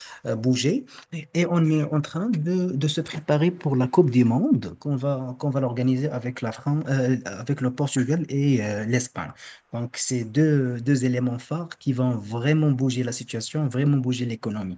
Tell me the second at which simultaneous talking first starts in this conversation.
none

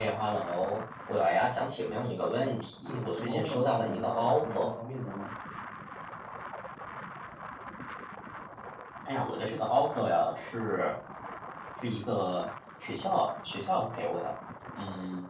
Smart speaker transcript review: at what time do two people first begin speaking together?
2.9 s

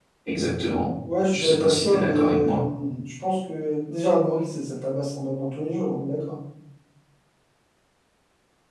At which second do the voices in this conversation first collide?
1.3 s

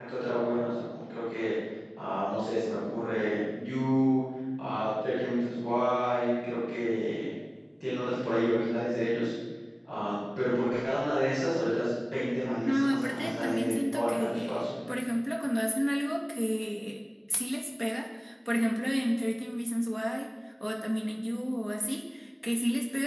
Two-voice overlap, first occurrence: 12.6 s

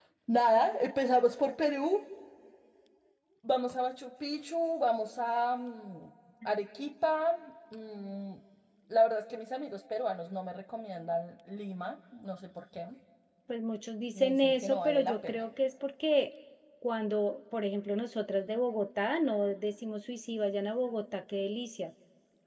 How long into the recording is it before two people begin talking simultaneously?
14.1 s

